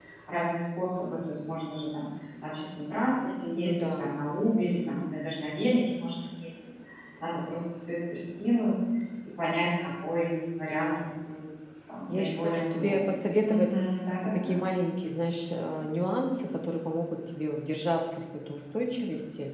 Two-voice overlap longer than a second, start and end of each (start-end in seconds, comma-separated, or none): 12.1-13.7